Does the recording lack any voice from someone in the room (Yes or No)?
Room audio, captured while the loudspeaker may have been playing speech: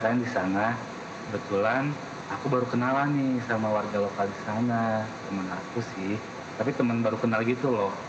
Yes